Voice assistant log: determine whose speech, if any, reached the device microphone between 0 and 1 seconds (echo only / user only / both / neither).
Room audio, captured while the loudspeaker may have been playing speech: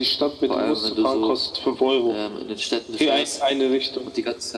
echo only